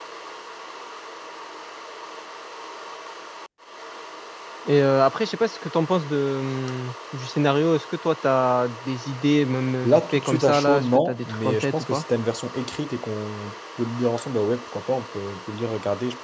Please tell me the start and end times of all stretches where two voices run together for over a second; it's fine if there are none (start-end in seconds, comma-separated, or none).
9.8-12.0